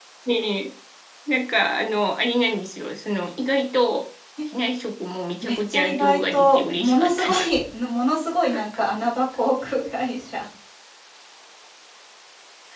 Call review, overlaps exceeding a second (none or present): present